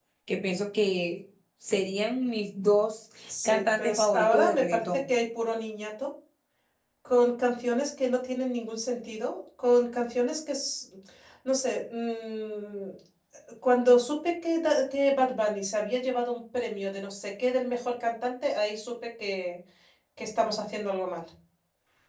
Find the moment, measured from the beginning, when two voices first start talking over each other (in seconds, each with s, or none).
3.3 s